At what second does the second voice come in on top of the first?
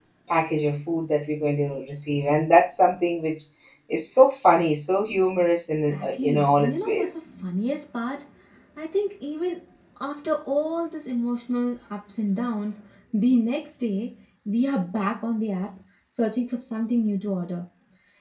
5.9 s

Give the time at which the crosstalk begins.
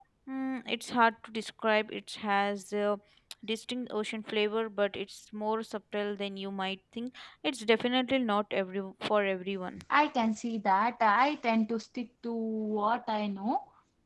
none

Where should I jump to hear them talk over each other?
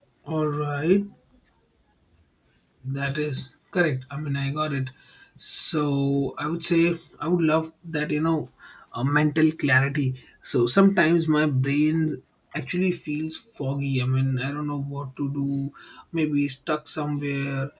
none

